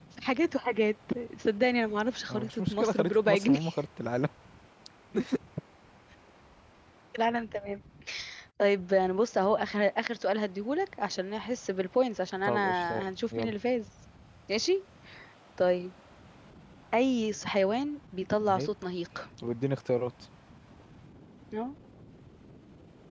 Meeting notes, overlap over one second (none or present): present